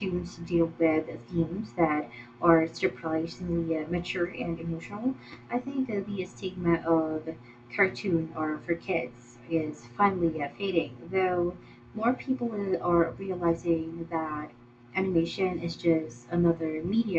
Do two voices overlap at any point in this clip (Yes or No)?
No